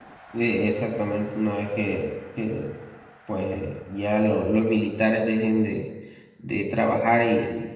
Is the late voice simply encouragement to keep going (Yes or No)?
Yes